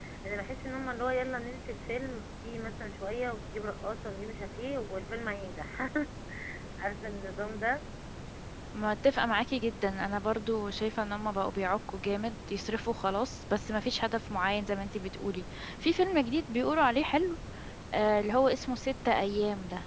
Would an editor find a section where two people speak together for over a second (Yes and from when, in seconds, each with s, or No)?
No